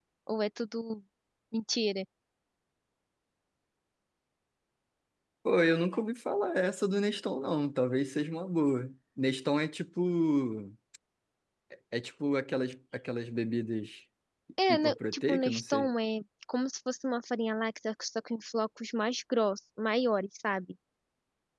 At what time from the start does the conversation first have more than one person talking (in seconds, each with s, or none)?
14.7 s